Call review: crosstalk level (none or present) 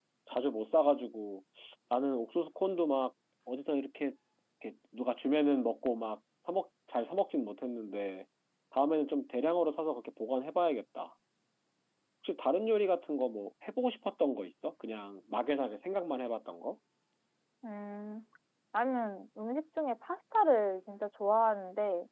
none